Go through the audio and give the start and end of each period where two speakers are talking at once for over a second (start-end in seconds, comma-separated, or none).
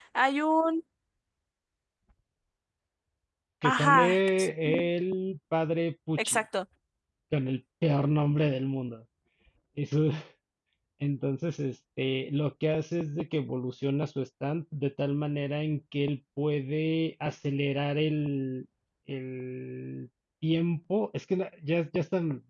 3.6-4.9